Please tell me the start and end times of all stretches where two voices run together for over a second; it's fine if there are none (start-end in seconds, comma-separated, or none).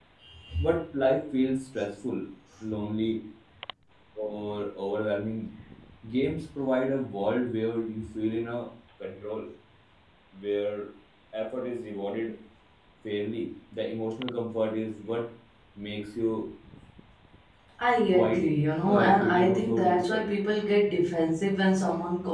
18.9-20.2